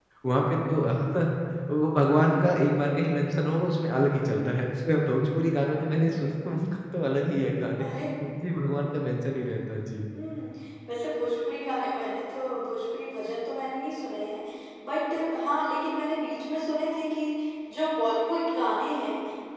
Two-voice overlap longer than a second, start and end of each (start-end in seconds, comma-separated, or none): none